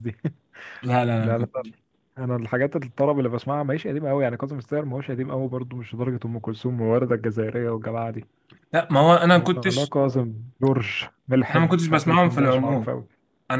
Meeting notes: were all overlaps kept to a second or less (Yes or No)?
No